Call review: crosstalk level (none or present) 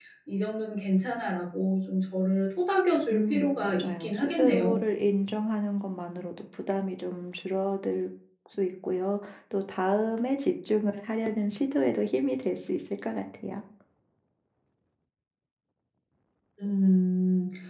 present